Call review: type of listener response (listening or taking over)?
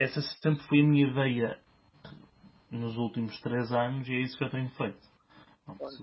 taking over